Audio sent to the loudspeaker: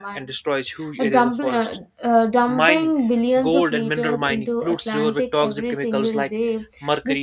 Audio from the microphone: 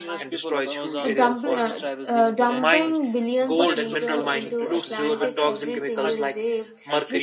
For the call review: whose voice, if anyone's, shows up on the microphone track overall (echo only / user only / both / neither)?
both